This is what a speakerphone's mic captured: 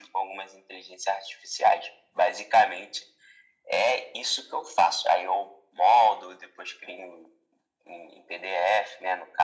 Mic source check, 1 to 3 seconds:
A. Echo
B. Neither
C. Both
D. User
A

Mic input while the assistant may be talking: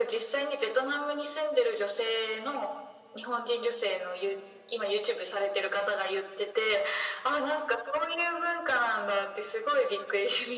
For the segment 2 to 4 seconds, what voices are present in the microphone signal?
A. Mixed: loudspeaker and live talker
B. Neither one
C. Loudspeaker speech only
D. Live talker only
C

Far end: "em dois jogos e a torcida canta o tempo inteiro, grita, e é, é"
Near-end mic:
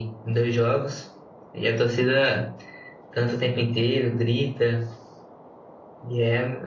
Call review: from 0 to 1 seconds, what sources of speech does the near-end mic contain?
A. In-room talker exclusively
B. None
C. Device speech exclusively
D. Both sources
C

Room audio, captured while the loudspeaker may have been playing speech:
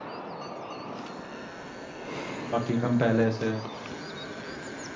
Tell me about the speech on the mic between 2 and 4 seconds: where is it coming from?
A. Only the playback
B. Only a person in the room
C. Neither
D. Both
B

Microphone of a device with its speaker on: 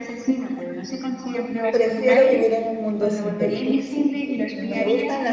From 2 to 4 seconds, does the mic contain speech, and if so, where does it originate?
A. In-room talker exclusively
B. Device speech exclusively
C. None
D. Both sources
D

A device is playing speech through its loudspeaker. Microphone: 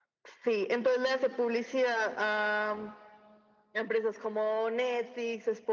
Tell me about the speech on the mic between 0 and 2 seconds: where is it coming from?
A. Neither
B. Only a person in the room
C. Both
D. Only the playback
D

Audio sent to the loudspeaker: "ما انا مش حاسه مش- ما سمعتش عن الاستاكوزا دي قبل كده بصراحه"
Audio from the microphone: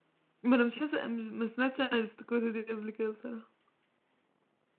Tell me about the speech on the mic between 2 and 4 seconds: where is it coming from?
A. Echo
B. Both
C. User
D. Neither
A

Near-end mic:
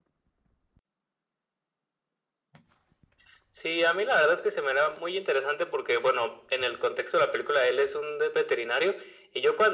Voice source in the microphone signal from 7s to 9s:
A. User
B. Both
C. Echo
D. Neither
C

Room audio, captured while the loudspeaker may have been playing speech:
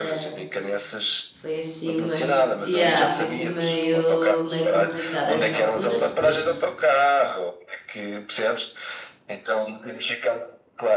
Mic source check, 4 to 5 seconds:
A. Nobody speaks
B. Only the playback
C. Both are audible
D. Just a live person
C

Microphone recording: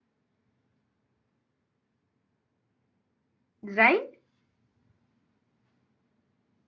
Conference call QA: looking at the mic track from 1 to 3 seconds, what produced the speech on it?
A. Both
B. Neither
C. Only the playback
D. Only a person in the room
B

